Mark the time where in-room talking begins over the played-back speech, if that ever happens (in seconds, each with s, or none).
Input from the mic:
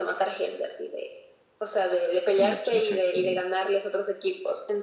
2.4 s